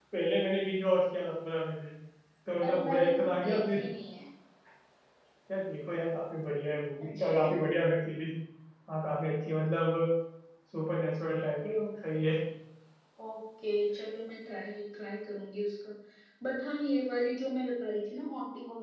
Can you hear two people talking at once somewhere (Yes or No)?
Yes